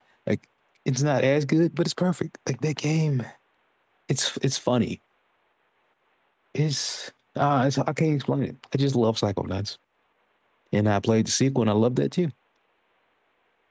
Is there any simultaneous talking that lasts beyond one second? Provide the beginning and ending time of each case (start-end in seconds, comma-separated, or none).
none